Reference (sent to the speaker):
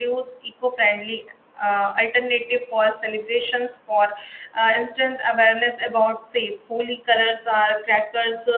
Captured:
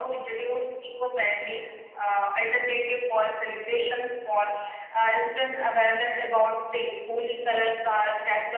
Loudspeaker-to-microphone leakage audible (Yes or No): Yes